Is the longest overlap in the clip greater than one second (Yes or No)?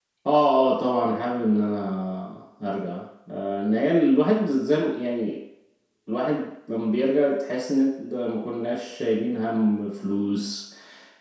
No